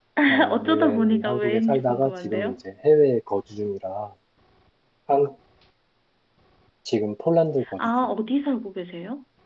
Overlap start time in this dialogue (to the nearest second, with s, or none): 1 s